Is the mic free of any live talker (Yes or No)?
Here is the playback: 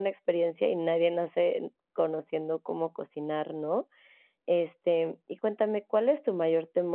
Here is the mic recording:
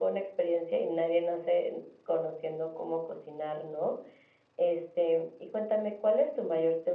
Yes